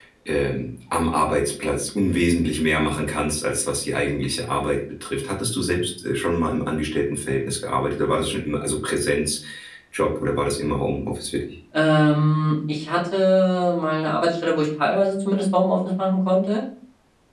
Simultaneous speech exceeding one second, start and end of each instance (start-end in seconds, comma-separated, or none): none